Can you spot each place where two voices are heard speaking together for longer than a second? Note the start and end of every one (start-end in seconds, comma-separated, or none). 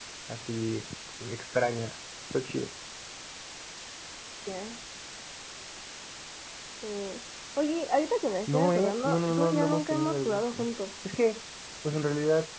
8.5-10.7